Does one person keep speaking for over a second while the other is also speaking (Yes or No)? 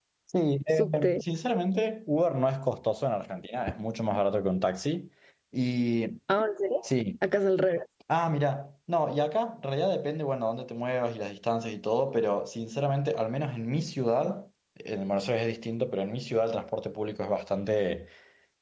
No